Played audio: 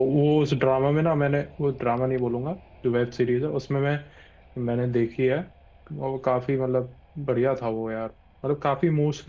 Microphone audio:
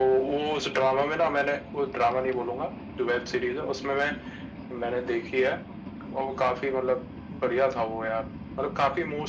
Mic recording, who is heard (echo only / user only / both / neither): echo only